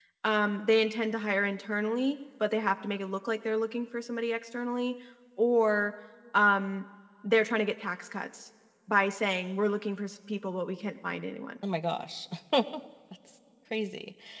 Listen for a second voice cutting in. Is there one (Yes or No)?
No